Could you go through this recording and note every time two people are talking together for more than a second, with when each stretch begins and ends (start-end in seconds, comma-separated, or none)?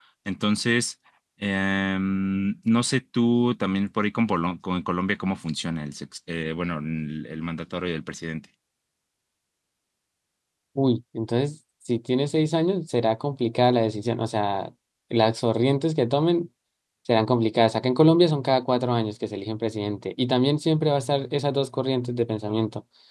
none